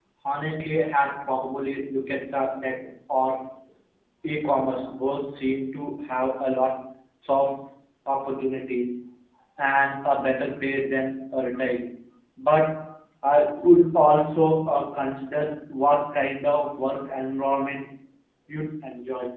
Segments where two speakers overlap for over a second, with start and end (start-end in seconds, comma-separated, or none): none